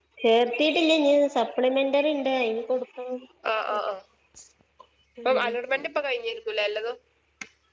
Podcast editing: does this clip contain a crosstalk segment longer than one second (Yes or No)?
No